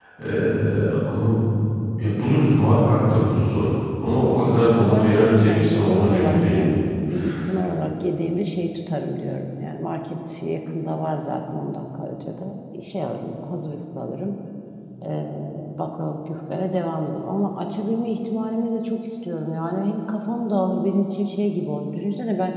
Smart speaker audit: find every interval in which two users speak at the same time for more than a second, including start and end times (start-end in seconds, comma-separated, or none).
4.6-6.6